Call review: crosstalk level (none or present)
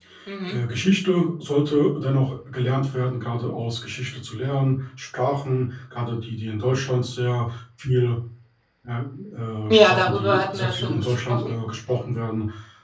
present